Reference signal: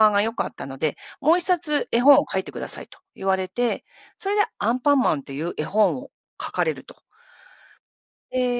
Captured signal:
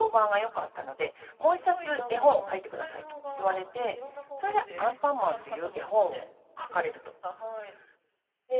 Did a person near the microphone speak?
Yes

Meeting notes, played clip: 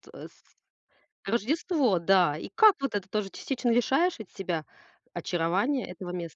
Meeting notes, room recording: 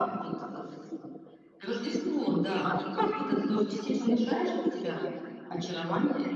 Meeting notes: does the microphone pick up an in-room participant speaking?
Yes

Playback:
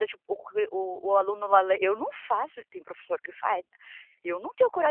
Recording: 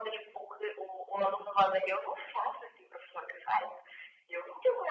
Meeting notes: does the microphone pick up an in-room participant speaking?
No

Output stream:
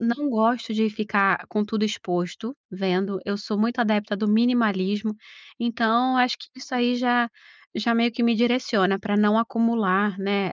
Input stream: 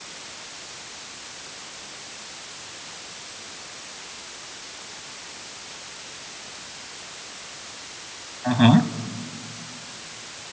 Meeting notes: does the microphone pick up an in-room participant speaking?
Yes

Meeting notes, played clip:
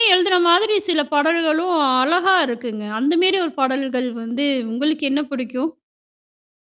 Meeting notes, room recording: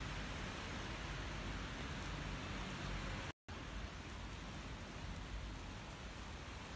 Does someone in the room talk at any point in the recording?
No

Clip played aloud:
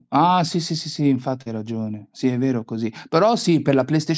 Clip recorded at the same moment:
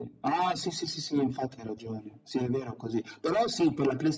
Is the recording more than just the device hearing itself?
No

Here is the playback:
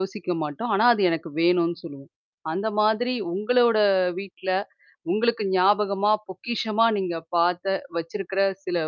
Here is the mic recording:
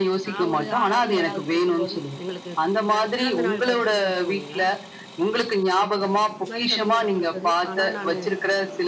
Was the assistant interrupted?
Yes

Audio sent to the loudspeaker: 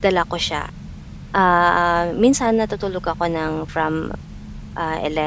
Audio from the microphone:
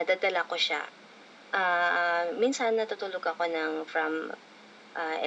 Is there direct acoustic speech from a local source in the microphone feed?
No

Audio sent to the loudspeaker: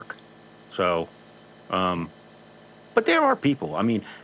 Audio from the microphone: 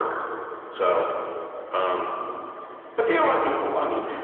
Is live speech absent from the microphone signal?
Yes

